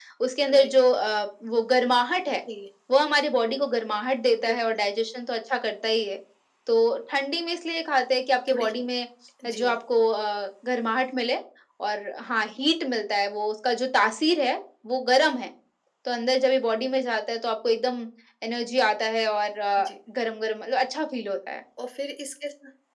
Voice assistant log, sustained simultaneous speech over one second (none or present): none